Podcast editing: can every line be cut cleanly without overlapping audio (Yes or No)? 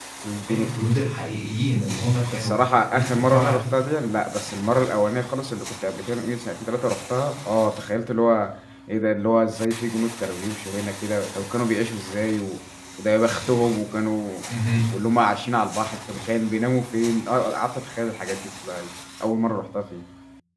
No